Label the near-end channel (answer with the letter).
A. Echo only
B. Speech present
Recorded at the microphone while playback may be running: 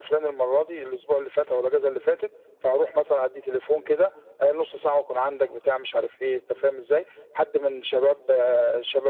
A